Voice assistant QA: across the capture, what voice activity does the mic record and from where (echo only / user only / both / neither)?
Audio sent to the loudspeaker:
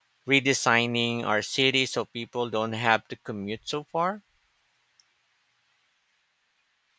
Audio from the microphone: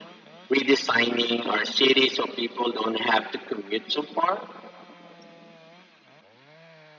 echo only